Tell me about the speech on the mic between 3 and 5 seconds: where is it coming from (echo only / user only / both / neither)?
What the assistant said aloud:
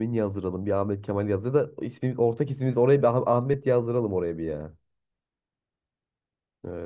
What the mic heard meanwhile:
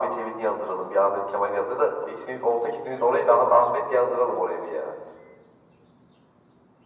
echo only